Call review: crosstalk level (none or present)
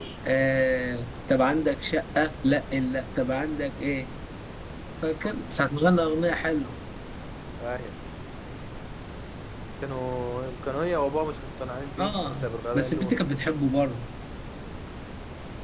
present